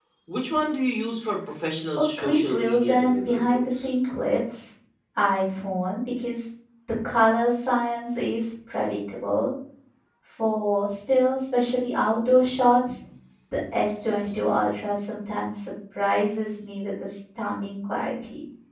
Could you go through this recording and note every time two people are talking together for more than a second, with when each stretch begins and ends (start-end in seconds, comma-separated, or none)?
2.2-3.9